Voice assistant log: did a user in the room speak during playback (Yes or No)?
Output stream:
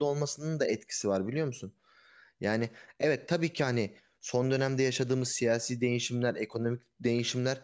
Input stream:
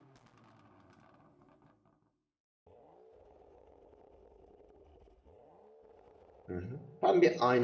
Yes